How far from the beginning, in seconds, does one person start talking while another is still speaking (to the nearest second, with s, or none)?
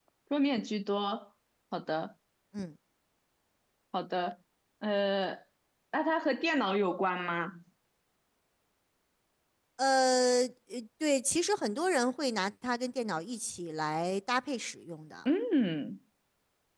none